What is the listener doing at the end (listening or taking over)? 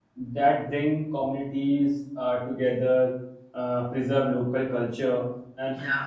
listening